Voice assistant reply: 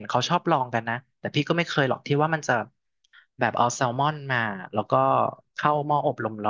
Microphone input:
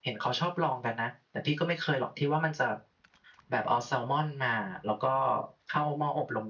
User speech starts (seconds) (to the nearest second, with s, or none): none